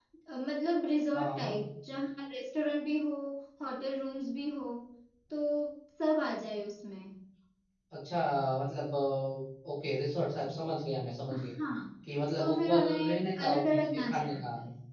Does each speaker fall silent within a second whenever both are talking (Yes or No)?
No